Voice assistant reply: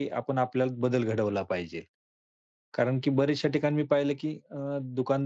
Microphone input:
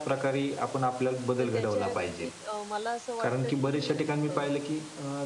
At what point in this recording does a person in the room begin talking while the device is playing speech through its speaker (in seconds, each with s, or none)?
1.4 s